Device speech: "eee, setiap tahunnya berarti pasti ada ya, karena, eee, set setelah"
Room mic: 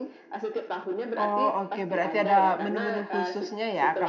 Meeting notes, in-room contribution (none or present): present